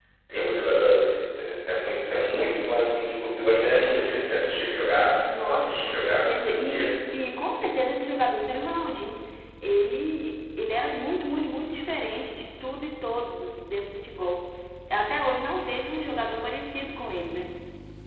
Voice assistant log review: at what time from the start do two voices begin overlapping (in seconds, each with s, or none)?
5.2 s